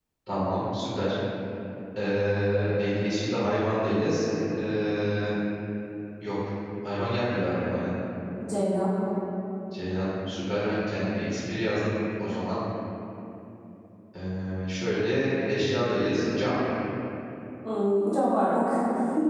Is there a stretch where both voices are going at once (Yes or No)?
No